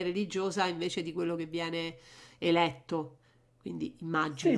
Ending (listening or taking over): taking over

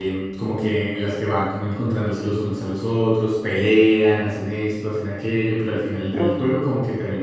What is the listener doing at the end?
listening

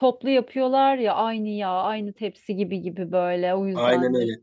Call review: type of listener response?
taking over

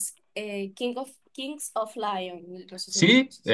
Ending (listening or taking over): taking over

